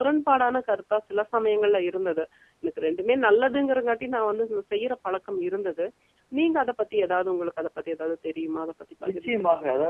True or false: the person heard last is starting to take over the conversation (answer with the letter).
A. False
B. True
B